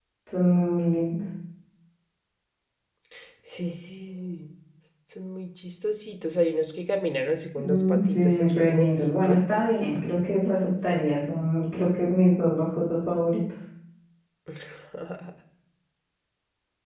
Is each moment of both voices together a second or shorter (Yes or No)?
No